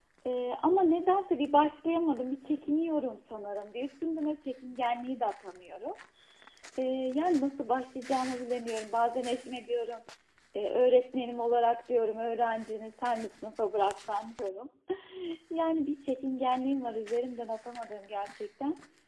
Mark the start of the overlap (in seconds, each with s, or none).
none